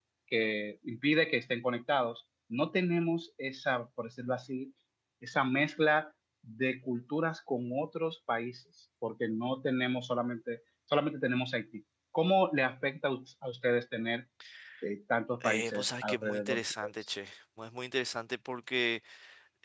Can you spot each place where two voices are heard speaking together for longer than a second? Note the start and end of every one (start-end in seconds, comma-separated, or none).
15.4-16.9